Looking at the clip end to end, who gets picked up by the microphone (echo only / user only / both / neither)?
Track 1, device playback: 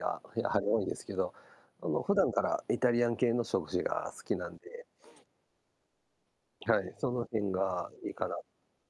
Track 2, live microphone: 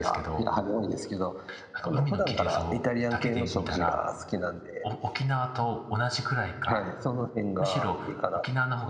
both